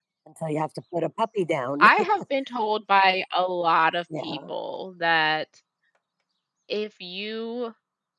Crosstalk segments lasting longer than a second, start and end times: none

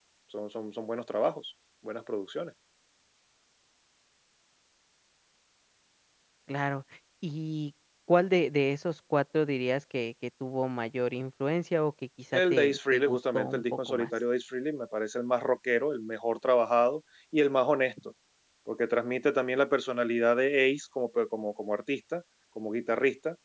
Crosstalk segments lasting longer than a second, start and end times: 12.3-14.1

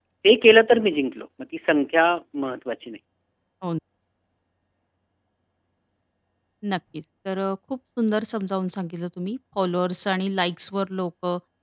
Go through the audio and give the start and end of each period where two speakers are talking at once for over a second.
none

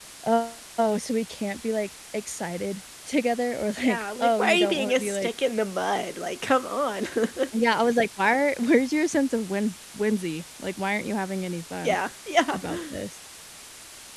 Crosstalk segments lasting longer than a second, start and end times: 3.8-5.3

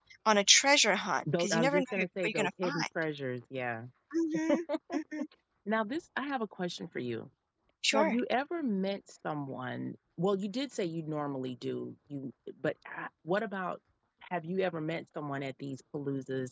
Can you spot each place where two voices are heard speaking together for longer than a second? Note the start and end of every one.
1.4-2.8

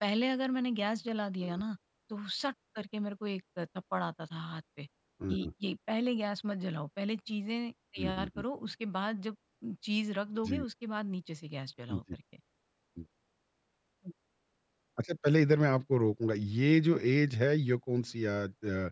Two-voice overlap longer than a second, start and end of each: none

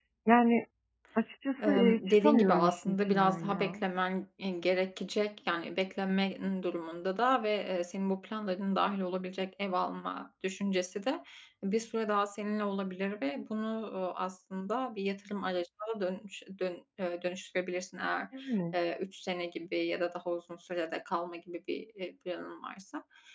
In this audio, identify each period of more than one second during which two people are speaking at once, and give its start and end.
1.6-3.8

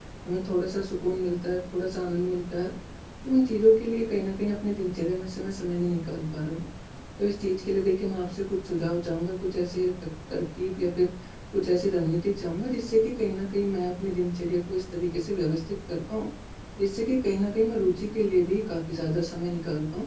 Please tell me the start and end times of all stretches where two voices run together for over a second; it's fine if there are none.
none

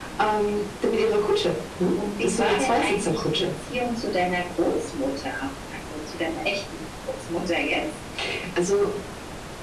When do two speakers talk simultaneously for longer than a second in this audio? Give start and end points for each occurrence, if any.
2.2-3.5

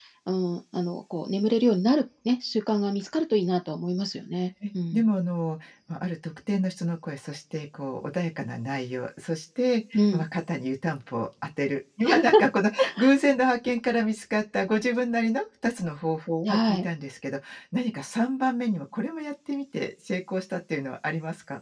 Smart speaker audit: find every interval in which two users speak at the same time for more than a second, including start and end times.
none

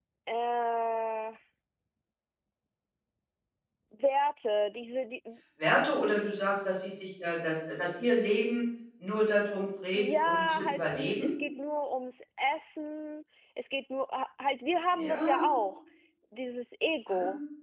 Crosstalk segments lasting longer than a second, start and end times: 9.9-11.3

